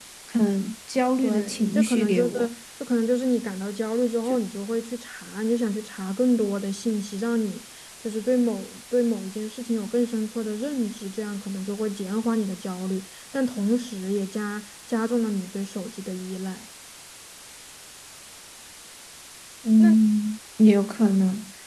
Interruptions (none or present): present